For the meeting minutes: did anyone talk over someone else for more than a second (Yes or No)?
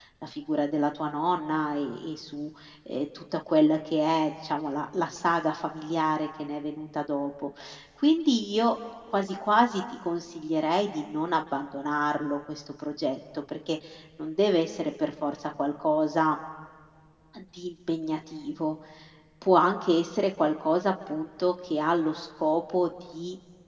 No